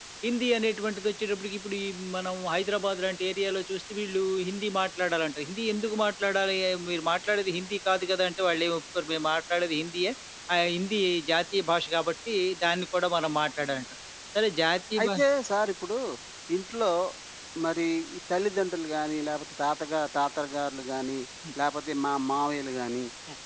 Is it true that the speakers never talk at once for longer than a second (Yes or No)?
Yes